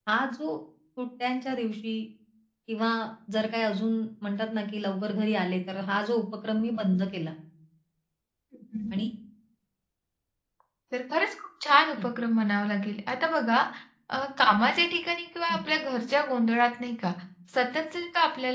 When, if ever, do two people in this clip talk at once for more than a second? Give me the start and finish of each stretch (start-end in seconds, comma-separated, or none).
none